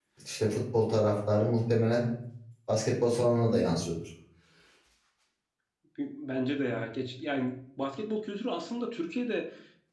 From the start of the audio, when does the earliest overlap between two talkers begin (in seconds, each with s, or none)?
none